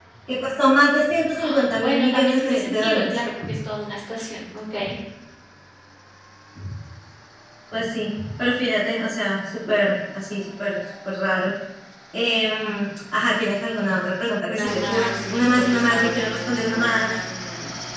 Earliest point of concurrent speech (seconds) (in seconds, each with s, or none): 1.4 s